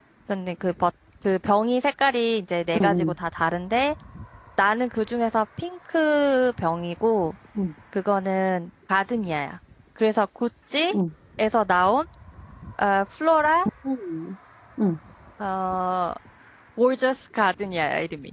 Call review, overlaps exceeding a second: none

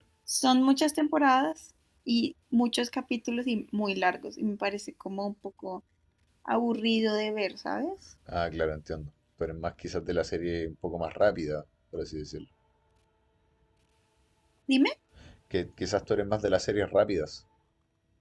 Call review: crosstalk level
none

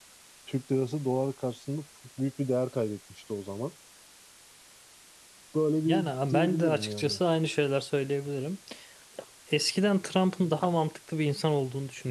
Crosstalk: present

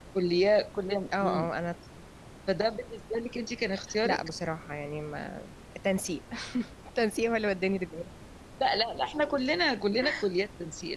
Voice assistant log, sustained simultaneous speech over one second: none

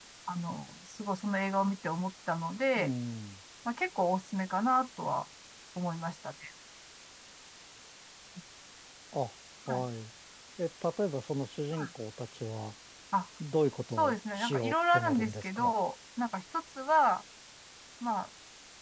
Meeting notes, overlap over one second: present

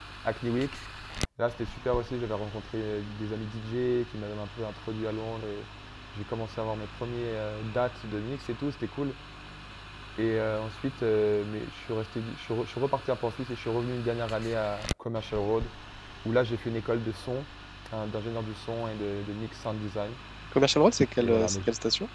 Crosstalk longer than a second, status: none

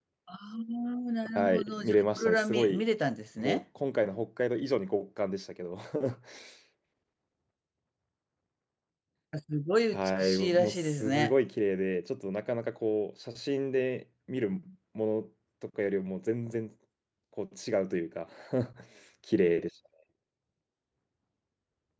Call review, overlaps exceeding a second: present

